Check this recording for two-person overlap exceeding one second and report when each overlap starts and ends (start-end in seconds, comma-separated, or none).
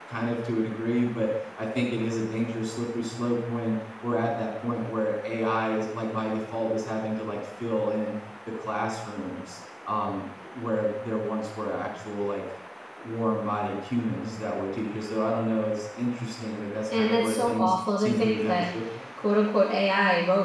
17.0-18.7